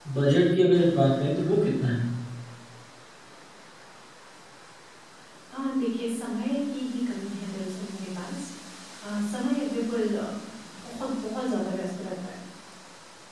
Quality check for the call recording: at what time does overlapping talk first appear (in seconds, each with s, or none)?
none